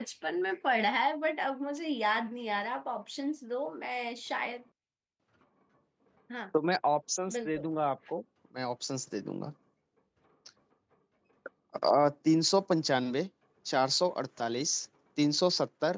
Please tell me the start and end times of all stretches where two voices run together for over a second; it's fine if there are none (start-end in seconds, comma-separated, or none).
none